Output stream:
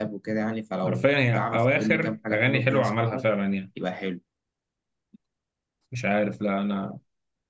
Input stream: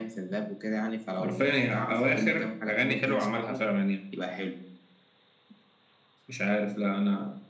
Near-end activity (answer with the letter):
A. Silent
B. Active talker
A